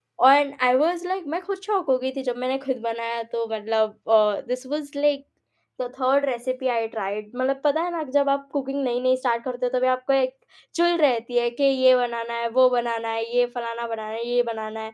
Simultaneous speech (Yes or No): No